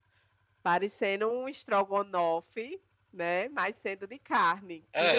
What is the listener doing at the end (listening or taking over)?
taking over